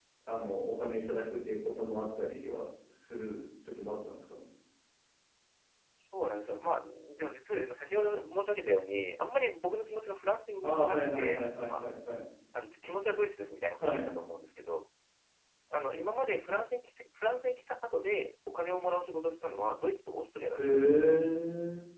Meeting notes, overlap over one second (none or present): present